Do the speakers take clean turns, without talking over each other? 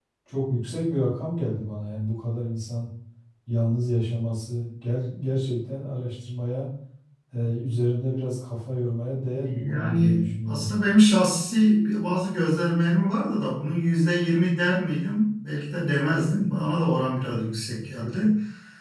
No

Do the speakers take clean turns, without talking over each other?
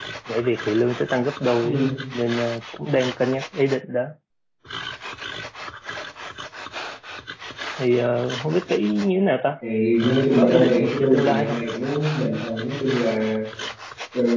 No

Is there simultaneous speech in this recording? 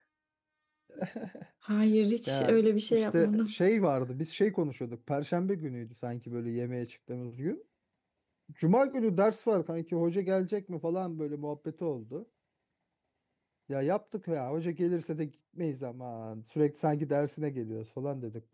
Yes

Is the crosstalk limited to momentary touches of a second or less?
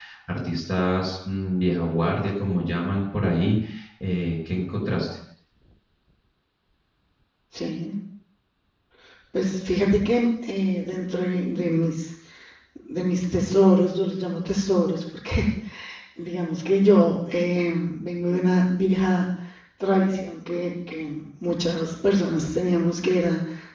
Yes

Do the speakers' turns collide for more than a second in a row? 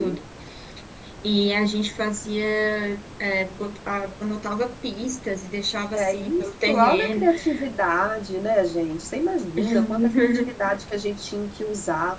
Yes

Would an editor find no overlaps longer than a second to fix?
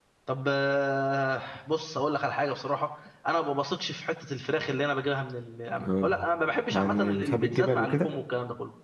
No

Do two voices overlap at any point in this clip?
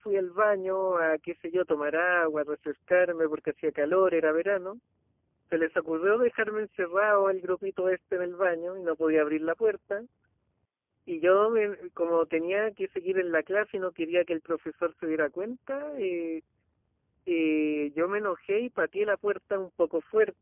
No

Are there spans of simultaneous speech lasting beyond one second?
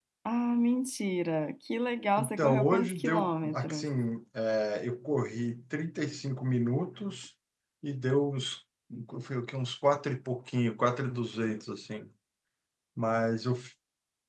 Yes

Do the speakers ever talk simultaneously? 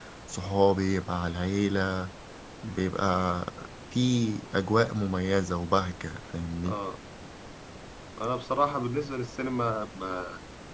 No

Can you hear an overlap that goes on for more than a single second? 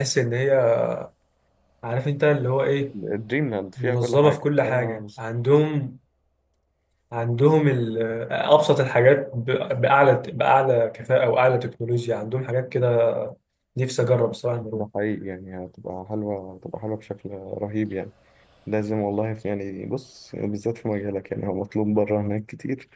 Yes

